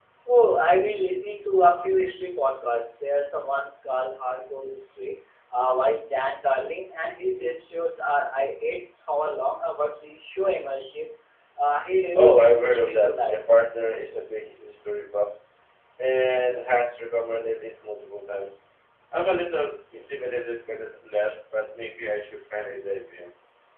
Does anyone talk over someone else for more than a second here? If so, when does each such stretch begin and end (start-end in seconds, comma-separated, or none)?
12.1-13.4